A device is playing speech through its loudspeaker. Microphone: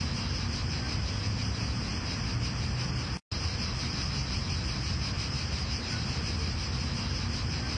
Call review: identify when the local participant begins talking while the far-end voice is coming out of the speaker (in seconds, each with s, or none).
none